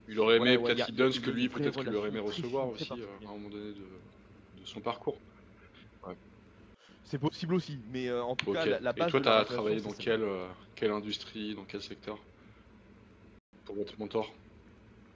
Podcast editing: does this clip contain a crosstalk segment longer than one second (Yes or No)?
Yes